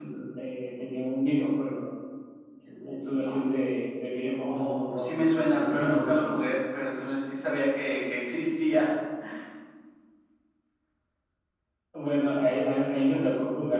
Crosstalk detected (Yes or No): Yes